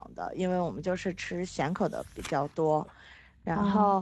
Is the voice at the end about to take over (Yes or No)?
No